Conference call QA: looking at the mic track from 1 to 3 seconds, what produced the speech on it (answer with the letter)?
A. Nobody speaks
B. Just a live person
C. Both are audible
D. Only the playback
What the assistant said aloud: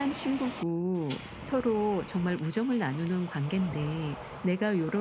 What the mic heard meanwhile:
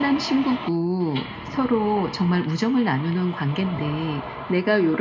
D